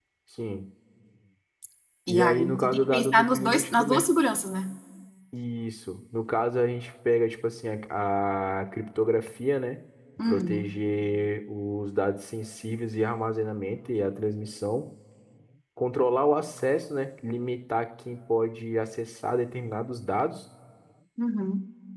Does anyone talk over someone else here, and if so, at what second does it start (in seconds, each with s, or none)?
2.1 s